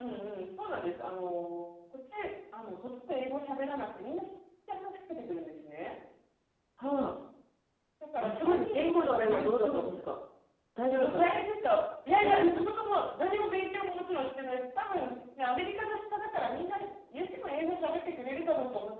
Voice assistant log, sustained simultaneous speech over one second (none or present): present